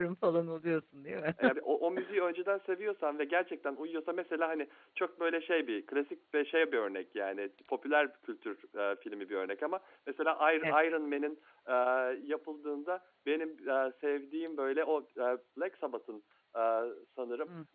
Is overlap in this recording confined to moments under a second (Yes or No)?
Yes